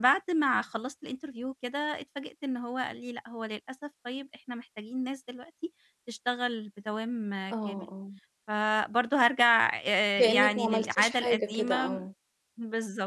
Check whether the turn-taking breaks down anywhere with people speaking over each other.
Yes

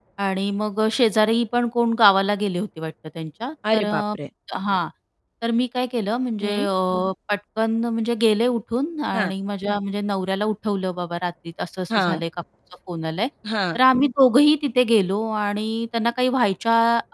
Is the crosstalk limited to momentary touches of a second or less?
Yes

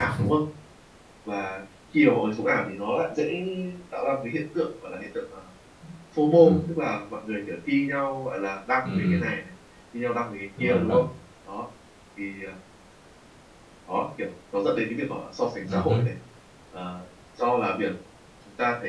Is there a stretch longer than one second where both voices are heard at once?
No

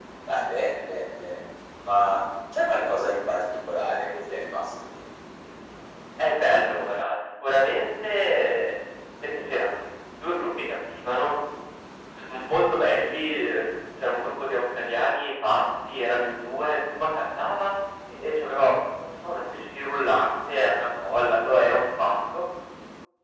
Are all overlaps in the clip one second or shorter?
Yes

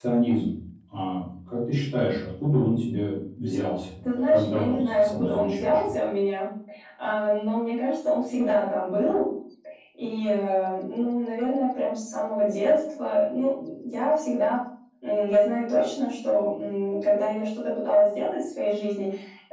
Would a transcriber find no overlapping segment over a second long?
No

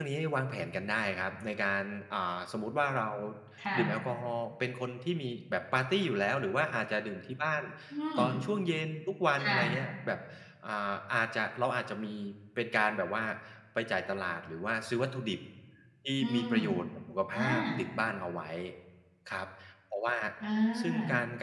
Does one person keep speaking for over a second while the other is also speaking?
No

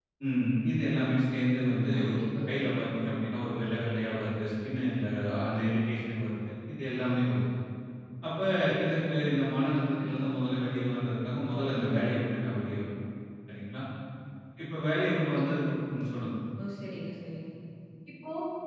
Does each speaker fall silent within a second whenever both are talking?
Yes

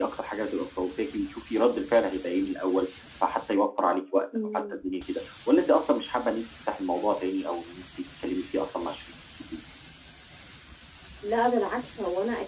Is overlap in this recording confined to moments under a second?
Yes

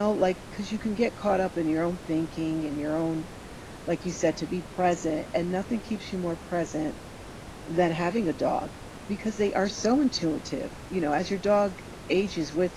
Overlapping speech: No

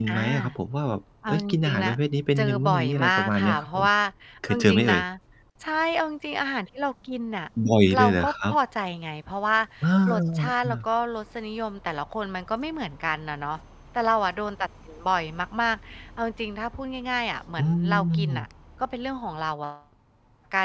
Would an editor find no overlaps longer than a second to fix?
No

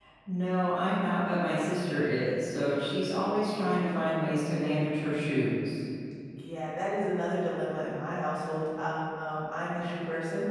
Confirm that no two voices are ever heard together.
Yes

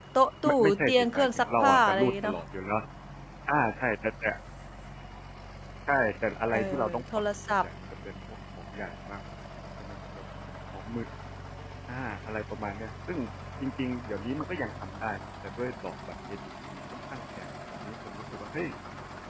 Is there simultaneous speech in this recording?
Yes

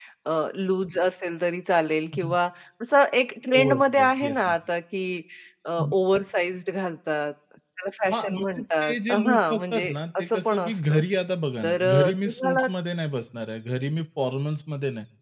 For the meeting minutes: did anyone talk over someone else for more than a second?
Yes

